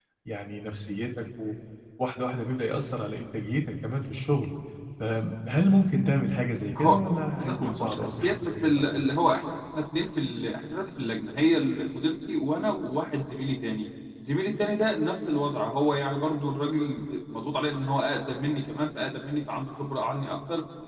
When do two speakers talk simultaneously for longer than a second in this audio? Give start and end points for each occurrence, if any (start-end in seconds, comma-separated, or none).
7.4-9.1